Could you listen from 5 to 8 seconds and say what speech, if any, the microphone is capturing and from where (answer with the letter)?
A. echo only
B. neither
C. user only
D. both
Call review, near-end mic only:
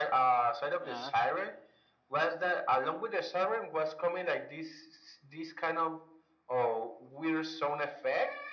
A